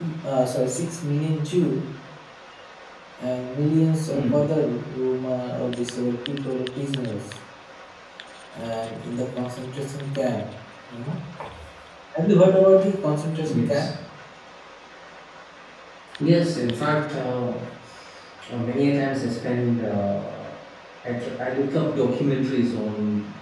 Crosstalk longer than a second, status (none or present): none